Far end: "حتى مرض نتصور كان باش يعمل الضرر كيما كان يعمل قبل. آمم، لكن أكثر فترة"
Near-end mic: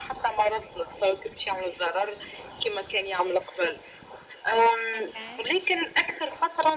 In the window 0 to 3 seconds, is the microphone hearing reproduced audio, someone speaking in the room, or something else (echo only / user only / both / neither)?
echo only